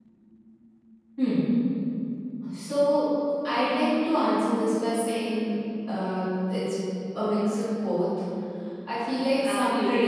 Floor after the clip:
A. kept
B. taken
B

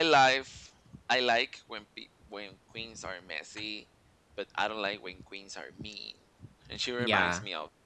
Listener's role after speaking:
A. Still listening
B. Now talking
A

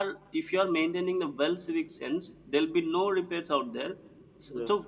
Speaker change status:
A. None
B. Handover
A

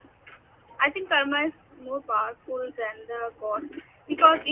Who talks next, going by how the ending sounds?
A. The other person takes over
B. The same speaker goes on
B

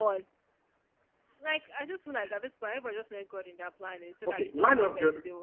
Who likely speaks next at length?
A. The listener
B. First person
A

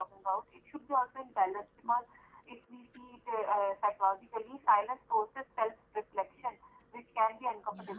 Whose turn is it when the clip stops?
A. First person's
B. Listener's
A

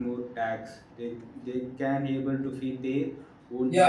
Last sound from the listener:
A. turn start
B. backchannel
A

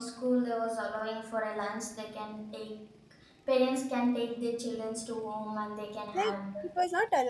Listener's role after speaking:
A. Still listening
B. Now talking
B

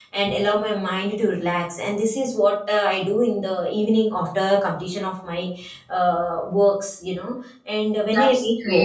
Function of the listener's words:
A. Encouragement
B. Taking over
A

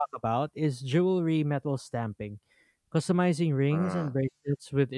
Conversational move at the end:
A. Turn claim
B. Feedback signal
B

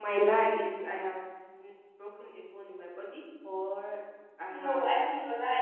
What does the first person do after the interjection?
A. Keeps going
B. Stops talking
B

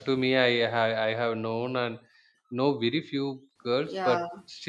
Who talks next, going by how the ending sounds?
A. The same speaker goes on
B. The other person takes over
A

